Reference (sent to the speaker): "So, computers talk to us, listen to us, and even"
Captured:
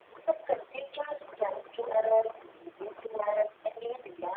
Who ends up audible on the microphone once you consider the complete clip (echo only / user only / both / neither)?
echo only